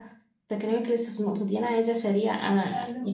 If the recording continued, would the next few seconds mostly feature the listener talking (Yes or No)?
No